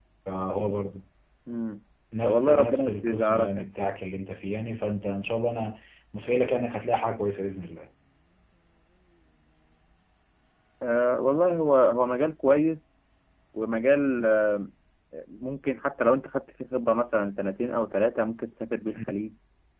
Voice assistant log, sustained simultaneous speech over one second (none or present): present